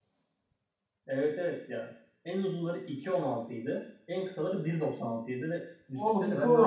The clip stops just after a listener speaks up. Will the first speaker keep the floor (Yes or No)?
No